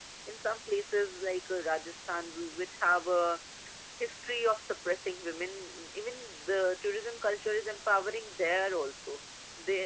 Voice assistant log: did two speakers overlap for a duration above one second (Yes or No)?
No